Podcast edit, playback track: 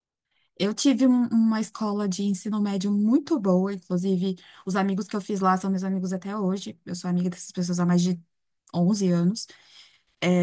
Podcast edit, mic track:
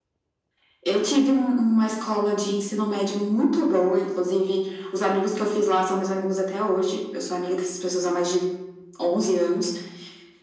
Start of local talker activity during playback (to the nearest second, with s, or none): none